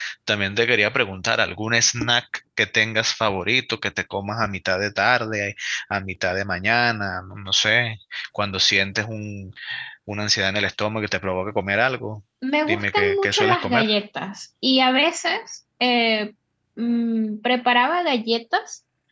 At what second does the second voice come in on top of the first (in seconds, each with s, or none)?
12.7 s